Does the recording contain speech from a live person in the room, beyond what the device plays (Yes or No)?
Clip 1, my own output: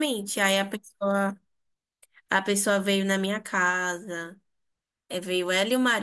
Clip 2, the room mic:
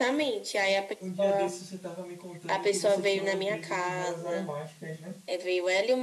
Yes